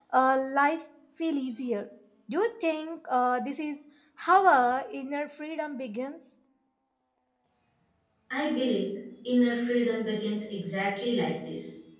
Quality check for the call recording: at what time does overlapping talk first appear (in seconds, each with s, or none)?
none